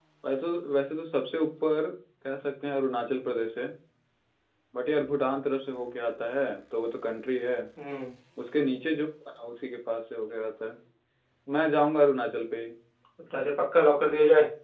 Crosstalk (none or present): none